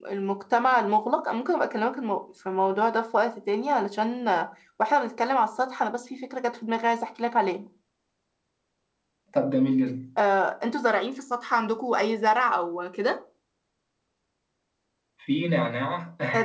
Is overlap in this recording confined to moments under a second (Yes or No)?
Yes